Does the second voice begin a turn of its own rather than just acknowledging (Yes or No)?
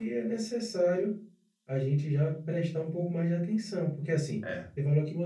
No